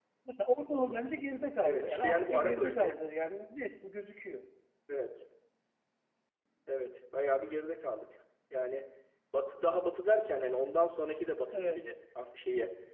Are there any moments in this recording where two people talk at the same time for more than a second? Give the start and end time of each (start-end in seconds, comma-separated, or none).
1.6-2.9